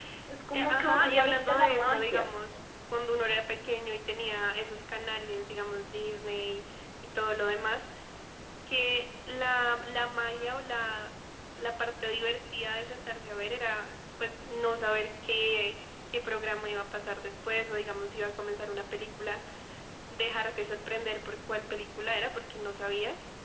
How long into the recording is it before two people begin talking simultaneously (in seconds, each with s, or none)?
0.5 s